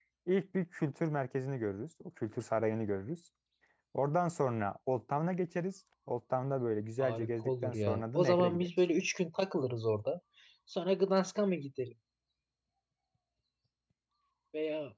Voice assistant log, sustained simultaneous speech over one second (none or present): present